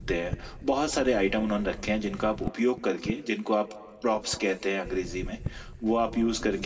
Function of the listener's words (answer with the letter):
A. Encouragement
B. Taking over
A